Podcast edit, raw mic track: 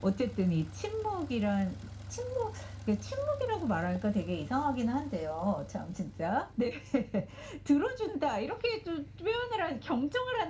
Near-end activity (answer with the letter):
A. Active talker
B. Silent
B